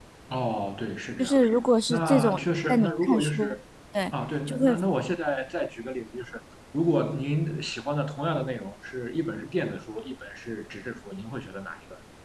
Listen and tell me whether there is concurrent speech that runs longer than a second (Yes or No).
Yes